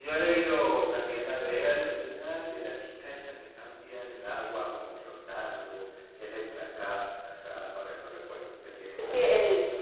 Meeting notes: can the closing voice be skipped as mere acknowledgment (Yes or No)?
No